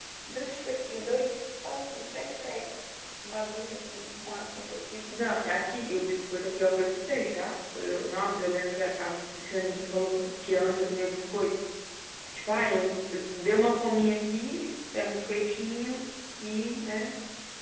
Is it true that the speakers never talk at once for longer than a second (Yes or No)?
Yes